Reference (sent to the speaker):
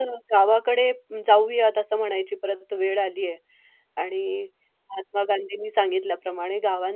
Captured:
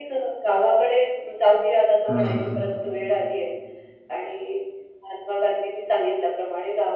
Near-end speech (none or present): present